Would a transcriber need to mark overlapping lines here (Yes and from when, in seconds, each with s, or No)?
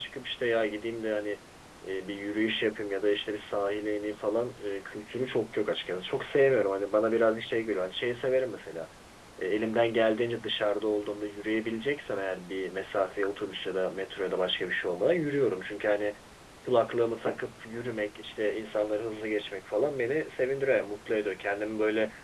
No